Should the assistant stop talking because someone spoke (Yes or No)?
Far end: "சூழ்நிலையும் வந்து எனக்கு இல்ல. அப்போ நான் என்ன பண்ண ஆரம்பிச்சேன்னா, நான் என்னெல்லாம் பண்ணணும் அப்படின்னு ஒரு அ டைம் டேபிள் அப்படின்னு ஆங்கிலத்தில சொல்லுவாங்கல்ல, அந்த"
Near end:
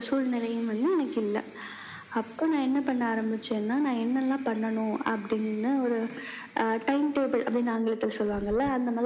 No